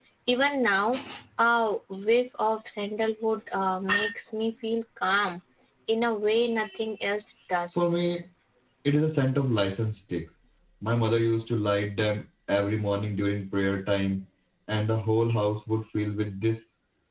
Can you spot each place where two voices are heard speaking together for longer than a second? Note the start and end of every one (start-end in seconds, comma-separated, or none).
none